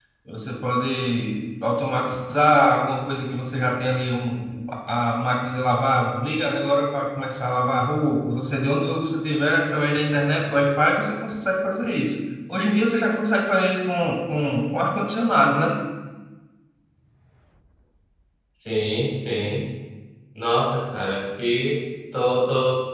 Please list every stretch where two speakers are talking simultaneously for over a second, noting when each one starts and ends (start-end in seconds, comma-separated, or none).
none